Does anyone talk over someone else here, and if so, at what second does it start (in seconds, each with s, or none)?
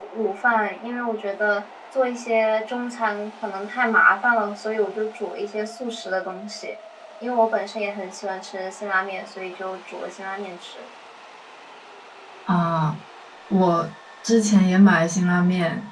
none